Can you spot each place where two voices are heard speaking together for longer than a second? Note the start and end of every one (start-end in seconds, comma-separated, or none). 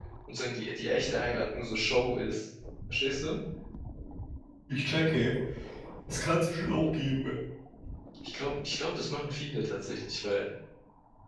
none